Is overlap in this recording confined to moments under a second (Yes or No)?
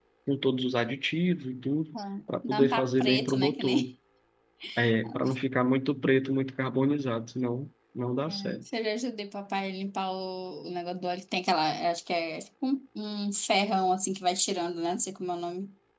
No